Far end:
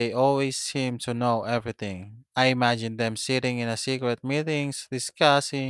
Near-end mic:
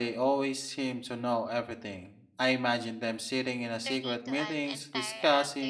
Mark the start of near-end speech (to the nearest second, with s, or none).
4 s